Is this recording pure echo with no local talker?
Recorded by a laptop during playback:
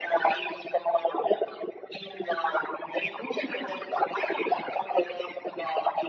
Yes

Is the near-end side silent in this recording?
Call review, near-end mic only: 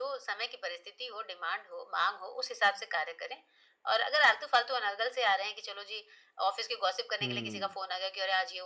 No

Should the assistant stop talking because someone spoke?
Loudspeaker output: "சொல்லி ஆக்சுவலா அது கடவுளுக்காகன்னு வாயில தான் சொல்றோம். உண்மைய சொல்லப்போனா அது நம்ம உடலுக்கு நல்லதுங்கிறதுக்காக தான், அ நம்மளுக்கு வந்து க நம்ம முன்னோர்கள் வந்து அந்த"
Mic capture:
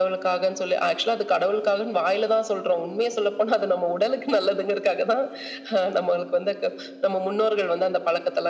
No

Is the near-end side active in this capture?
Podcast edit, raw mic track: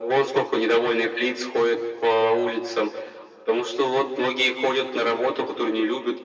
No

